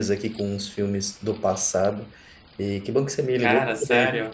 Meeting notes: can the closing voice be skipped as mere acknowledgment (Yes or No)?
Yes